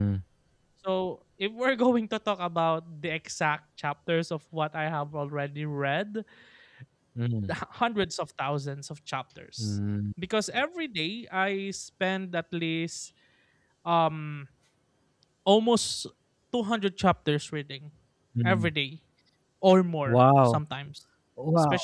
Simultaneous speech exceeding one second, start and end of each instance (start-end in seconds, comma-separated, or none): none